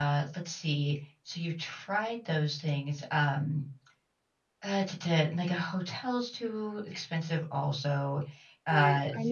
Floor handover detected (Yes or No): Yes